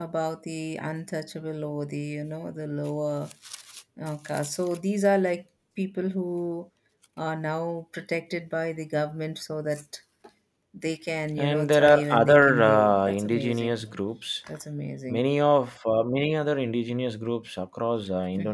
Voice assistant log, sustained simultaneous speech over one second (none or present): present